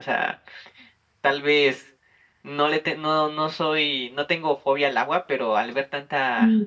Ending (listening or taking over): listening